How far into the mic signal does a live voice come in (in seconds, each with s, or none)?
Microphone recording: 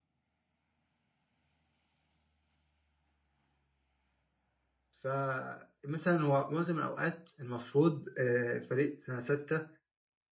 4.9 s